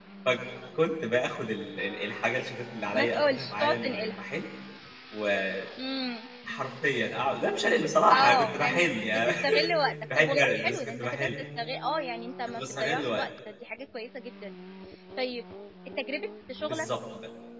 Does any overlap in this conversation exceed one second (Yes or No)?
Yes